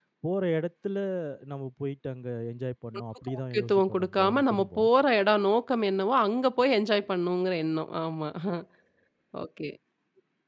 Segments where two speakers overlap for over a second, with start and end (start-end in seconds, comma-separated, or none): 3.3-4.9